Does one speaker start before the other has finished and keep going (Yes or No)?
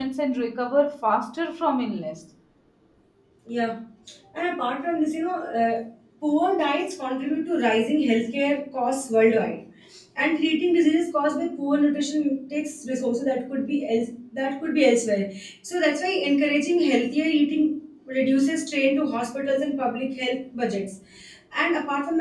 No